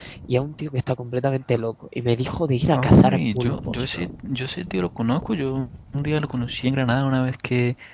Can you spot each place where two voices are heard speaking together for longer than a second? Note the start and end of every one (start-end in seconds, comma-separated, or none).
2.7-4.0